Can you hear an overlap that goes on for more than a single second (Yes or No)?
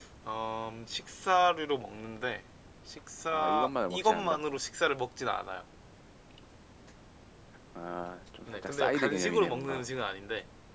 Yes